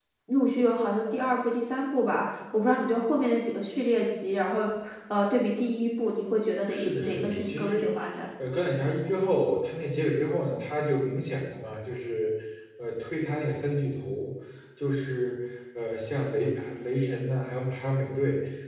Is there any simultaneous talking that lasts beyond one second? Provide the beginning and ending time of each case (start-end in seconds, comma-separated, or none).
6.7-7.9